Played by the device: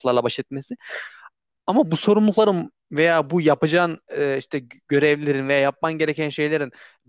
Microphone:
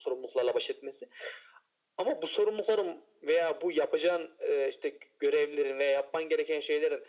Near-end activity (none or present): none